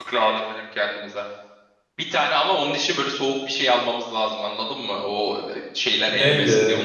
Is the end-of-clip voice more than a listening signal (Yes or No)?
Yes